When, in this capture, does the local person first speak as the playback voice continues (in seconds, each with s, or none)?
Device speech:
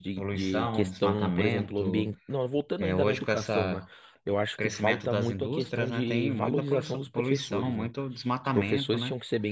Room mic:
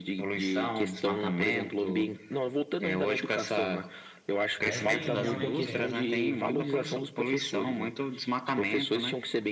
4.6 s